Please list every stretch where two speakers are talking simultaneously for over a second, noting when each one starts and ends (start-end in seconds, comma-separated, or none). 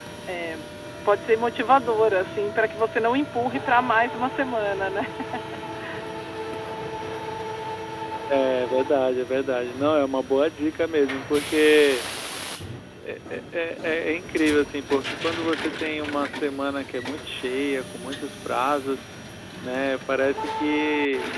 none